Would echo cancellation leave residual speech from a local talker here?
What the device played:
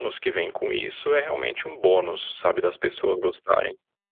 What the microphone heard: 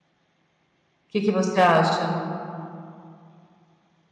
Yes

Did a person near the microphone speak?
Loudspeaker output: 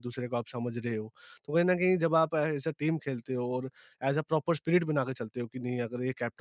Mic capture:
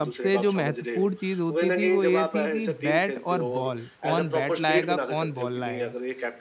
Yes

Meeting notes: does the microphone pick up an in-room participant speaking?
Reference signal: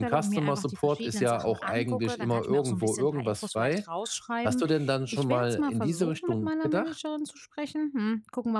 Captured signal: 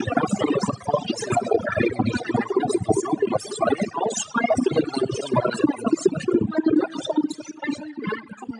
No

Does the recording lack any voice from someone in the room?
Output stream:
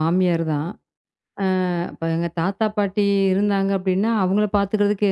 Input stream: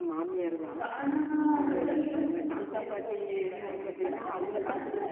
No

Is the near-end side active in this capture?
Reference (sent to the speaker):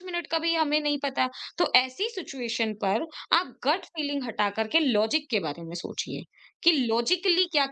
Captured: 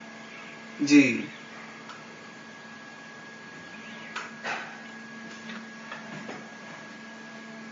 Yes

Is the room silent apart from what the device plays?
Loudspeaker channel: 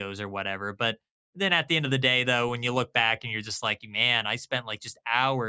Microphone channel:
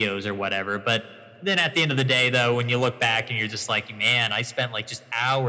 Yes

